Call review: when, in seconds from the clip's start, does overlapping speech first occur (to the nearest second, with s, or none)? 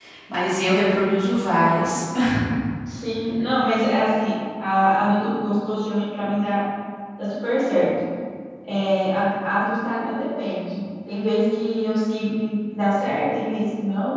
none